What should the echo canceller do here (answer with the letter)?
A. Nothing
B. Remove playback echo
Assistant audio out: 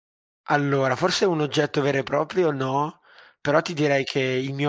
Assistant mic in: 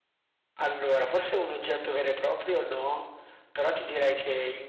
B